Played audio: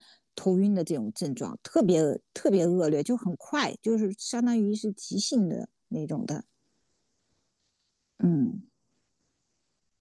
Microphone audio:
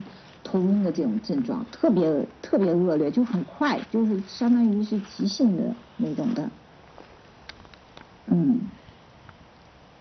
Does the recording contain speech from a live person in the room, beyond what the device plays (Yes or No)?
No